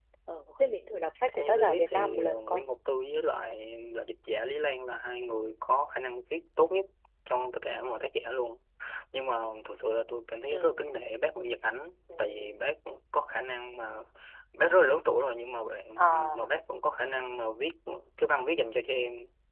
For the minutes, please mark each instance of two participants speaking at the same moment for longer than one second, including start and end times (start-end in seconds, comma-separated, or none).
1.4-2.6